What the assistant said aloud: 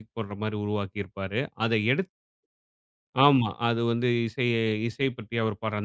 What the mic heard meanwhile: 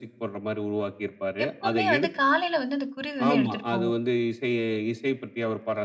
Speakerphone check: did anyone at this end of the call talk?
Yes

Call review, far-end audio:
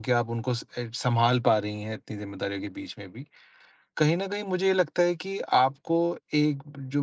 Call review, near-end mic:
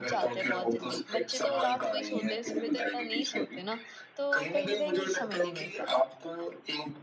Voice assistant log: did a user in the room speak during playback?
Yes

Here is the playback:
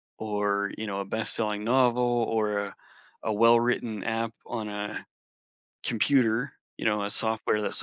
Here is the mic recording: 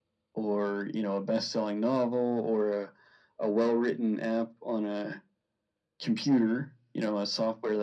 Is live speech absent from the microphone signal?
Yes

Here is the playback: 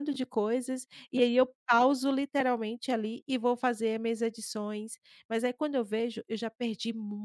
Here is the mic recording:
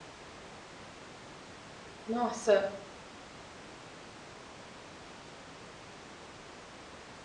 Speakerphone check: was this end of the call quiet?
No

